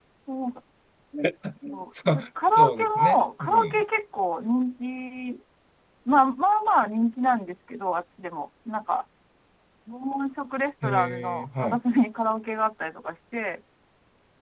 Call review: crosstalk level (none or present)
present